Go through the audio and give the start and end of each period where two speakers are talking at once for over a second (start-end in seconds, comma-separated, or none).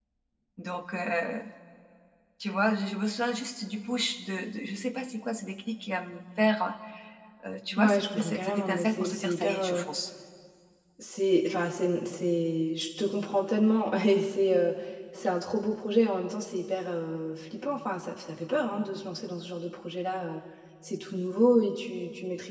7.8-9.8